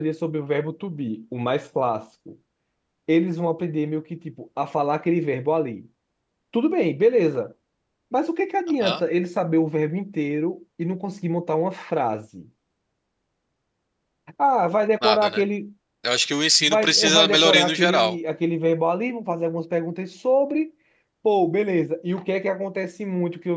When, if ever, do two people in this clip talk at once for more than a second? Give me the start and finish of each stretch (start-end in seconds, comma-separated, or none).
16.6-18.2